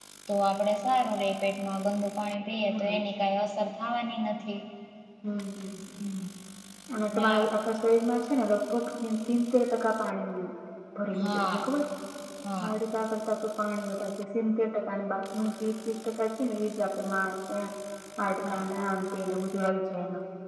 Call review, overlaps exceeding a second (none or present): none